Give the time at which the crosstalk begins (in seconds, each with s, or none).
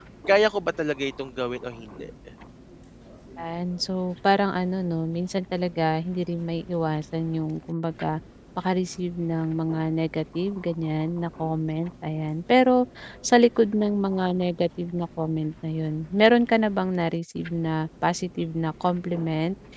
none